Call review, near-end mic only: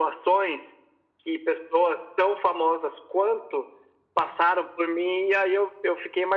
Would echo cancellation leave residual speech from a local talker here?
No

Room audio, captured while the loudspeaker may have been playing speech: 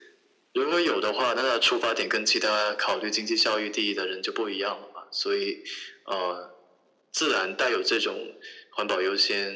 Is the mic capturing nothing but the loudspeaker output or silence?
Yes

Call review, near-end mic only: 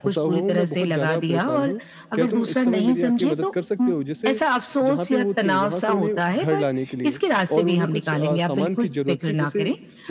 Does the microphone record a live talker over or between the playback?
Yes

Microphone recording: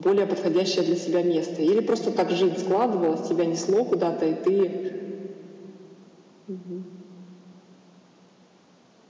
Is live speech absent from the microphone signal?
No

